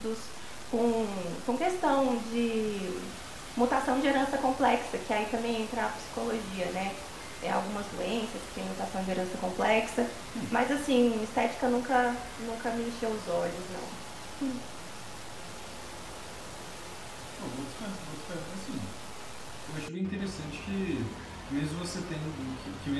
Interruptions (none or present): none